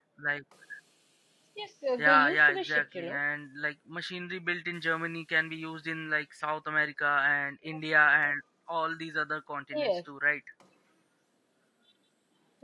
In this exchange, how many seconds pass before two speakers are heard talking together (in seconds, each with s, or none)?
2.0 s